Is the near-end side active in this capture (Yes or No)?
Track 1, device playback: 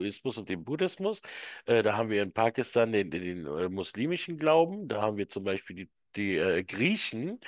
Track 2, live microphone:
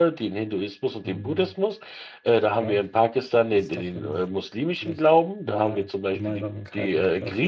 Yes